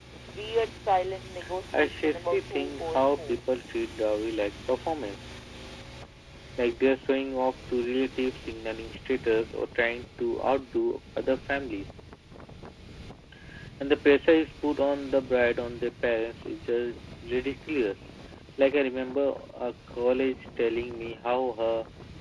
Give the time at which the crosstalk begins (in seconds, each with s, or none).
1.7 s